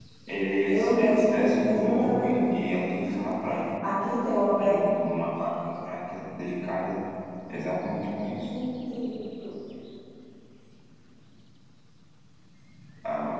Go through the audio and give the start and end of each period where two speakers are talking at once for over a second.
0.7-2.6

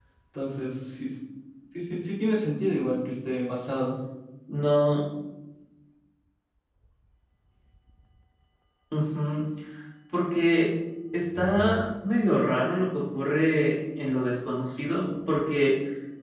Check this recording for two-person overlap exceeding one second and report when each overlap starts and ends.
none

